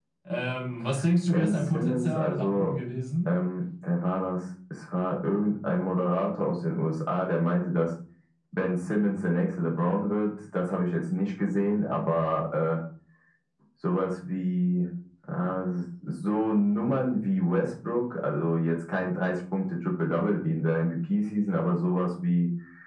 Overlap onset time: 1.3 s

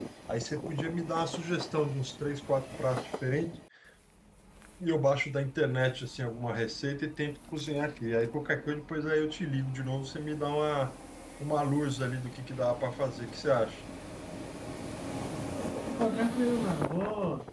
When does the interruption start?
none

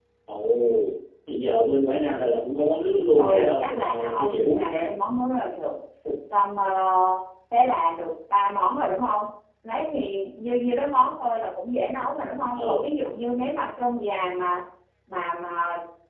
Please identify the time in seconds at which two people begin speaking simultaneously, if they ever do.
3.2 s

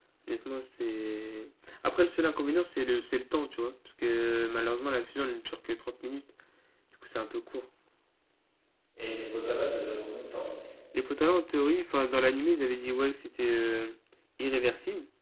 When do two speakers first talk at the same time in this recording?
none

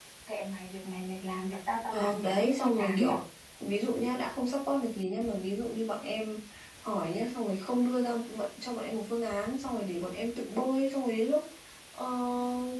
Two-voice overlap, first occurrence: 1.8 s

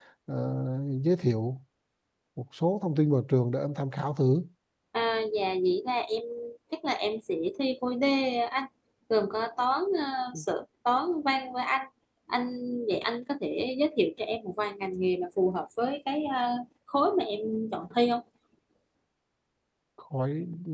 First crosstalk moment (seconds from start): none

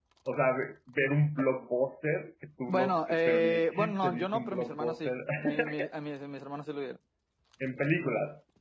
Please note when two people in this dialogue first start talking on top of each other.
2.7 s

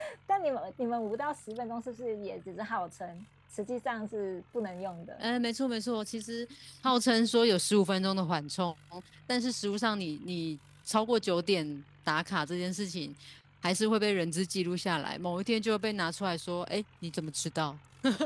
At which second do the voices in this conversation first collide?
none

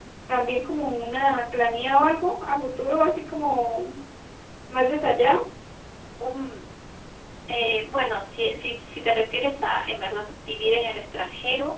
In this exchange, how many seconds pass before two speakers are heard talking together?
none

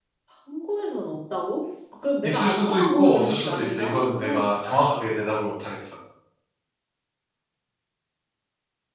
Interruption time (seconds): 2.2 s

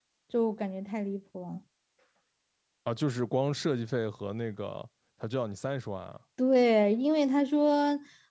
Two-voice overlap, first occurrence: none

